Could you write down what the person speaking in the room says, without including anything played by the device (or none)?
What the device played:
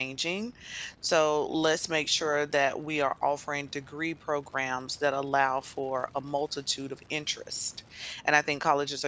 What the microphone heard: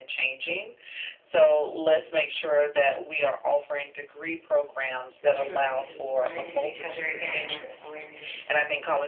For sure, maybe we will run into each other again. That is always interesting.